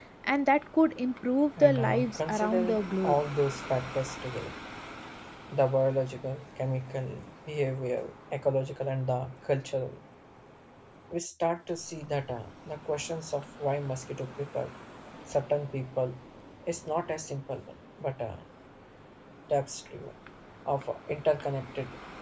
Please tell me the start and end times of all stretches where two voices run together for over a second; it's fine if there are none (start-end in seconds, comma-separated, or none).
1.6-3.2